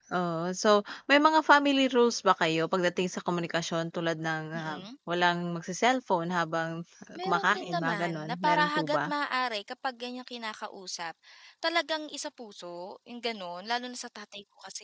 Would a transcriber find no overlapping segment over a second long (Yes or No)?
No